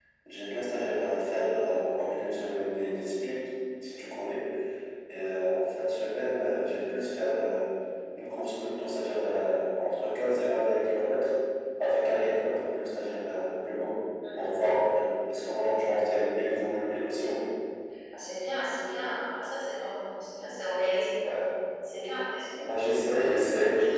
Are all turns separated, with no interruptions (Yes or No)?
Yes